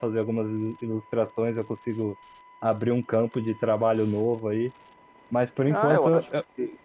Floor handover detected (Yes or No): Yes